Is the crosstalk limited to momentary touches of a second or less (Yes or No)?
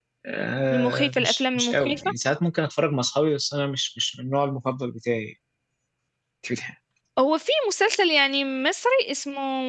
No